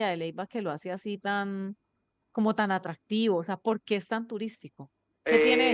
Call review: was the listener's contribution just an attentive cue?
No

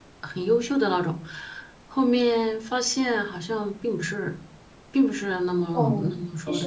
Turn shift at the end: Yes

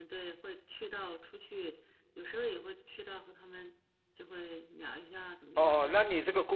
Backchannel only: No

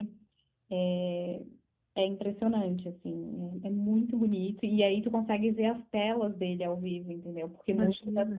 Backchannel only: Yes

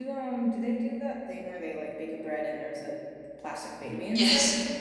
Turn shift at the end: Yes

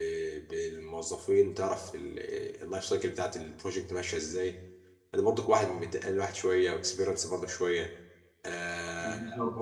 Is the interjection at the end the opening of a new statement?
No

